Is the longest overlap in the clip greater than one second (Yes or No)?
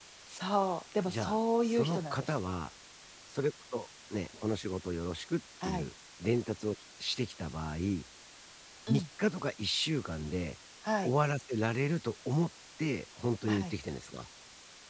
Yes